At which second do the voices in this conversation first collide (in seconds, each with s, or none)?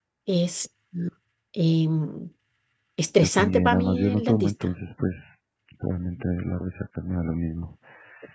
3.2 s